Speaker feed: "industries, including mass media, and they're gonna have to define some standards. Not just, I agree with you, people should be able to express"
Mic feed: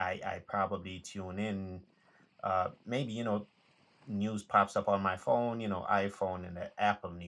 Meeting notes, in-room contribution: present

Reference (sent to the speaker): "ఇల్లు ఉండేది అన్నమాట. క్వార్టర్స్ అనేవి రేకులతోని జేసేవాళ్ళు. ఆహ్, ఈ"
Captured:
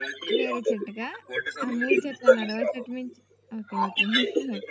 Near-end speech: present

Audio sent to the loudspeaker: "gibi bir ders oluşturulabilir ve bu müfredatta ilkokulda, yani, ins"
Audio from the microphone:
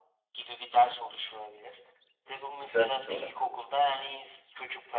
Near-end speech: present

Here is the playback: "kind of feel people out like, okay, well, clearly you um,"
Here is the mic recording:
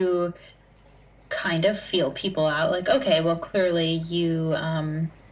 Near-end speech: none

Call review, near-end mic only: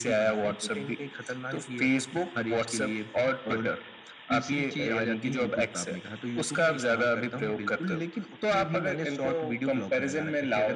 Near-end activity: none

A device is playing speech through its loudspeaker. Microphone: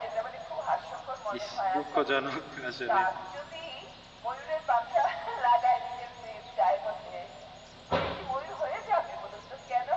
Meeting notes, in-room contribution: present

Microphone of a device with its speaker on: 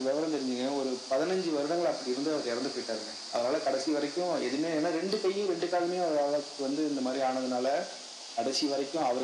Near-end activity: none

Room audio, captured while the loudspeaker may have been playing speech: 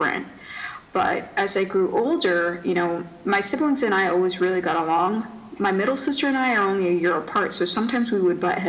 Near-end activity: none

